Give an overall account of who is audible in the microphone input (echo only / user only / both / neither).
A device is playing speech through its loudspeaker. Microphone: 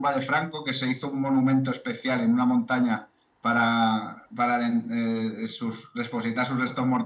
echo only